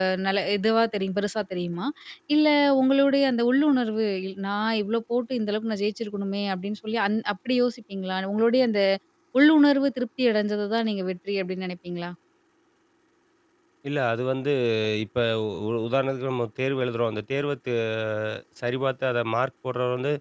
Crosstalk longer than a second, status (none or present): none